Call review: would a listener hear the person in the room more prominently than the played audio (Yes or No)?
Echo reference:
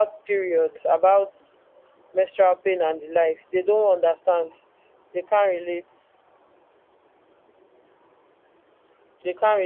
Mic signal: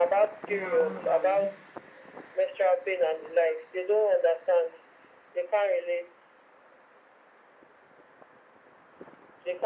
No